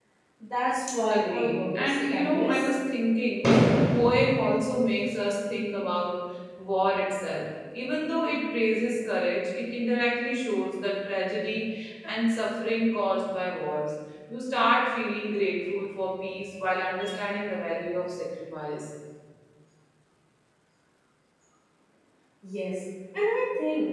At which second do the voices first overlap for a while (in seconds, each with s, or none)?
1.1 s